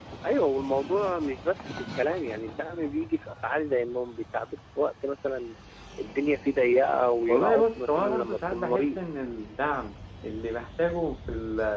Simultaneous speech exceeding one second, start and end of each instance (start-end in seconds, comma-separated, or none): 7.3-9.0